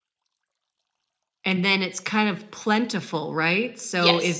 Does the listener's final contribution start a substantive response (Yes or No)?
No